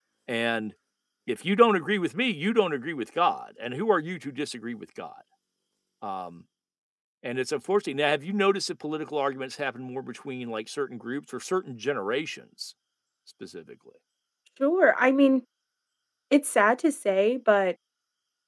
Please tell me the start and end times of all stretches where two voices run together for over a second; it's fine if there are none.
none

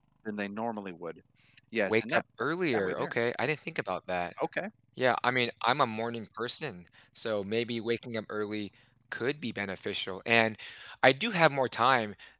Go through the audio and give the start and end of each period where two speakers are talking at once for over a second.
none

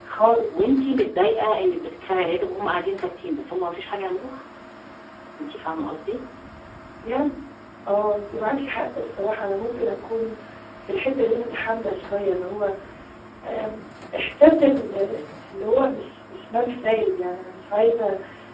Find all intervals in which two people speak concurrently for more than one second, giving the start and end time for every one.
none

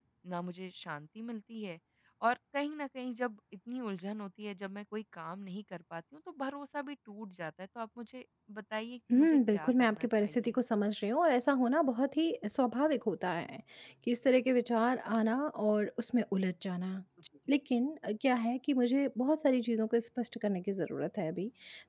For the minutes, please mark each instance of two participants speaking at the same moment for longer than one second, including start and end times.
9.1-10.6

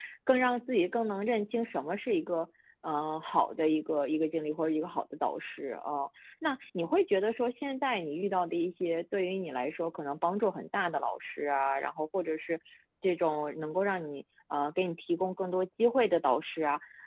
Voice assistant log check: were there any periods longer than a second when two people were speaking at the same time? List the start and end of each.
none

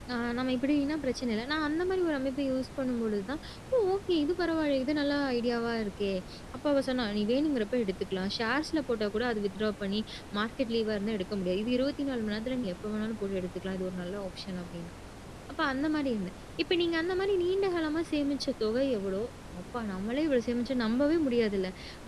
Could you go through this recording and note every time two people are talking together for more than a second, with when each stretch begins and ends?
none

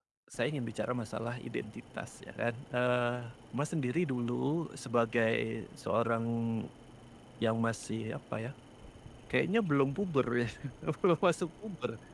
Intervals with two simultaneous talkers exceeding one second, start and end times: none

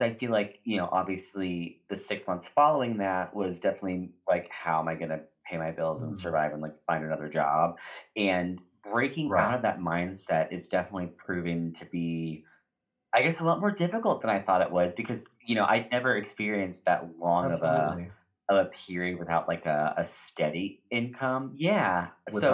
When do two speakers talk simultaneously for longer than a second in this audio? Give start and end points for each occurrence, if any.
none

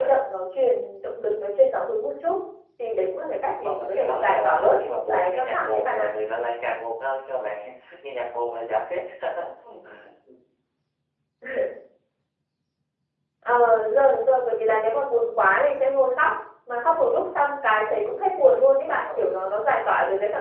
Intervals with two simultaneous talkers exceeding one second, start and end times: 3.6-6.0

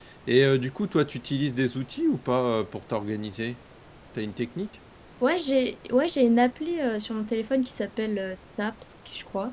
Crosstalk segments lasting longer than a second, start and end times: none

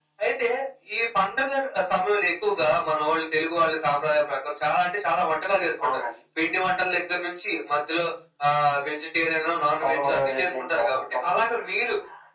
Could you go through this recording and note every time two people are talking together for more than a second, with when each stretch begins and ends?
9.8-11.5

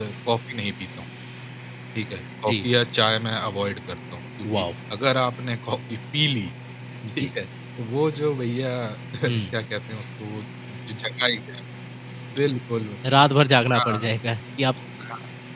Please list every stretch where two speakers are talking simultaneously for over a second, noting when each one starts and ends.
none

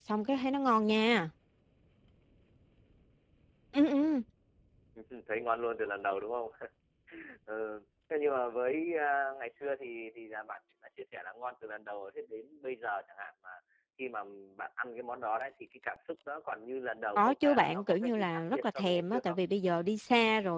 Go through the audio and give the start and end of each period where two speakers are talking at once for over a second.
17.1-19.4

